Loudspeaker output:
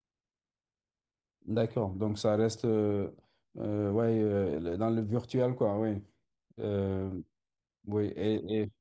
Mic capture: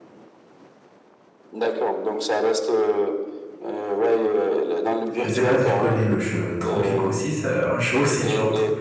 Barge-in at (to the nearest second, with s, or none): 5 s